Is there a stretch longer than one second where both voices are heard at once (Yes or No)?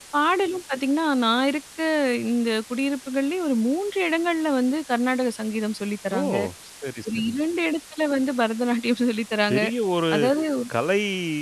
No